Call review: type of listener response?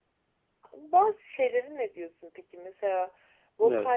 listening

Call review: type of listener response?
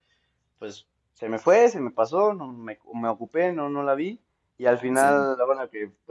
listening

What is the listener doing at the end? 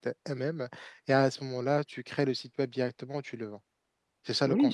taking over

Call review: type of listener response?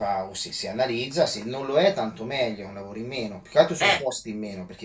listening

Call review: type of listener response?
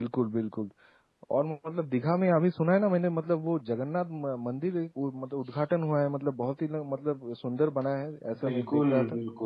taking over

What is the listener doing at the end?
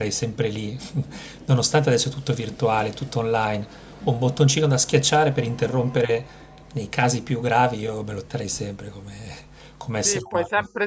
taking over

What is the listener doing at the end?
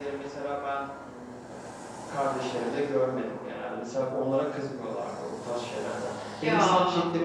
listening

